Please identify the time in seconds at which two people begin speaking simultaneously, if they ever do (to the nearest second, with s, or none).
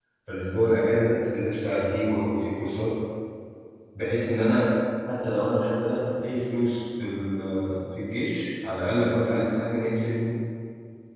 none